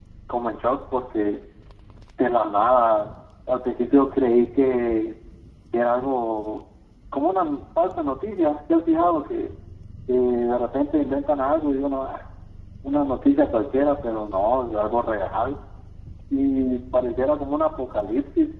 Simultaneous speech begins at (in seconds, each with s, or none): none